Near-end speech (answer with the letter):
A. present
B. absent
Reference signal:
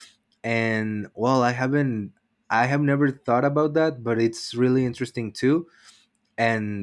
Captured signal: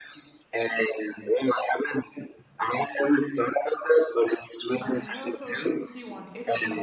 A